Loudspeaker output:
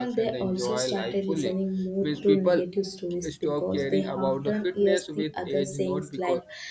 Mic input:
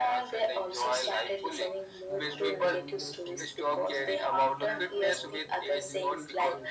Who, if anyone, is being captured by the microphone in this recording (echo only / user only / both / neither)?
both